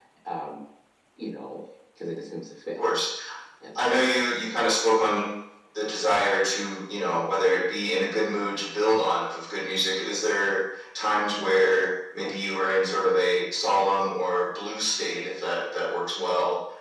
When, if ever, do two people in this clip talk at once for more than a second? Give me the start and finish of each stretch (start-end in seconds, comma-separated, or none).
none